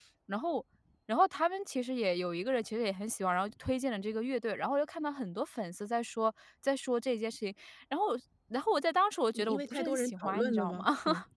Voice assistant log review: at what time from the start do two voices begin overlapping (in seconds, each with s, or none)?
9.3 s